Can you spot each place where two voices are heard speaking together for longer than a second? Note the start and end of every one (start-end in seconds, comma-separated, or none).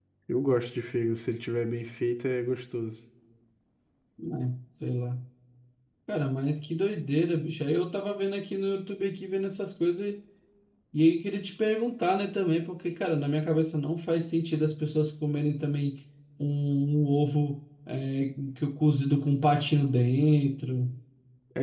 none